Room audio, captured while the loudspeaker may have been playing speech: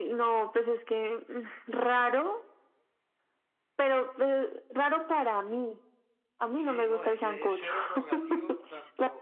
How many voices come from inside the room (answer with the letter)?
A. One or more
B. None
A